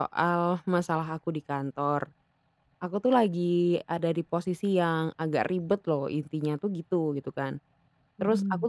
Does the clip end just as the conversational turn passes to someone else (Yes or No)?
No